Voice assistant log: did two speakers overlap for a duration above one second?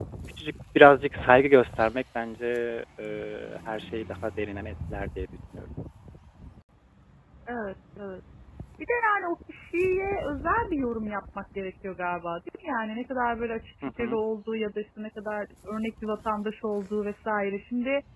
No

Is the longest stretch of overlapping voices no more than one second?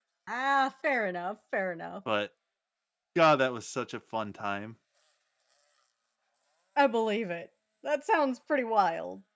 Yes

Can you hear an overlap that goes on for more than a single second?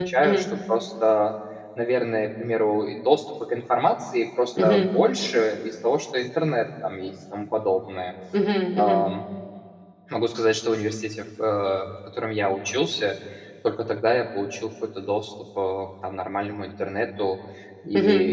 No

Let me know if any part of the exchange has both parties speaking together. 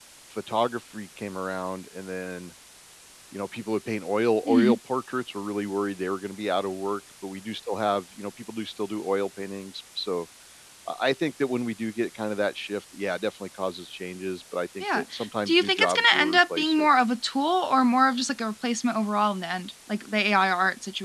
Yes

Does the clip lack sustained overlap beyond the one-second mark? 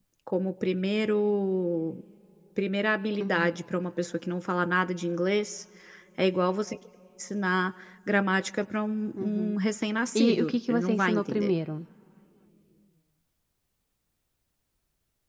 No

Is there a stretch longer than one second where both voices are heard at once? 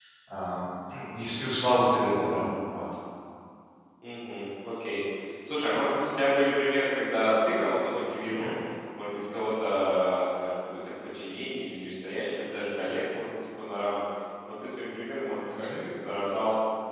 No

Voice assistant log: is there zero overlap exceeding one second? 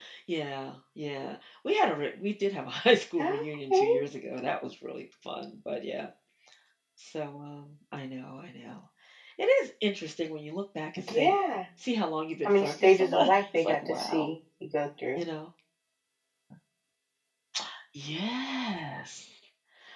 No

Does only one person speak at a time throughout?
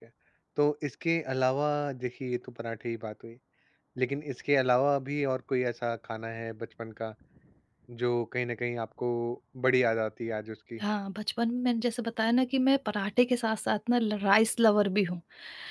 Yes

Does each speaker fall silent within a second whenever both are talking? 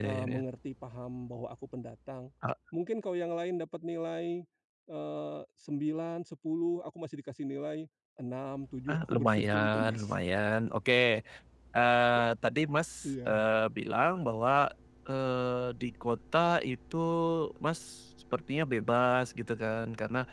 No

